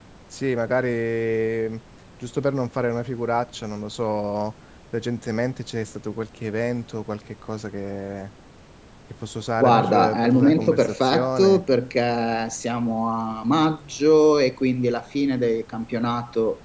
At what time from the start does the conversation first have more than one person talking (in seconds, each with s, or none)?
9.6 s